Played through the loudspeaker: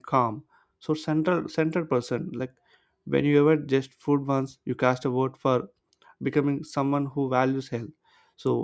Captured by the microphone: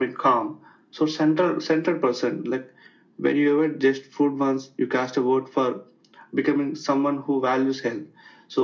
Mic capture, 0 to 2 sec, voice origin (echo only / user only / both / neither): echo only